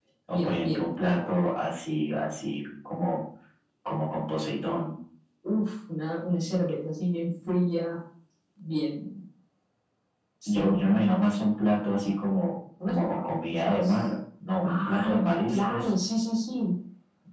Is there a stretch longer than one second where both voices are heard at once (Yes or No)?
Yes